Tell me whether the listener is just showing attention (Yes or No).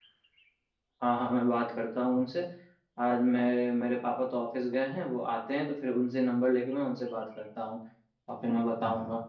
Yes